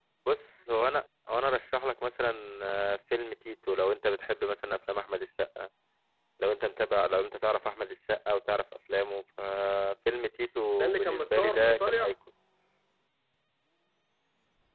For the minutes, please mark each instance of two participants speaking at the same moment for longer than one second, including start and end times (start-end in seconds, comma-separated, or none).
10.7-12.1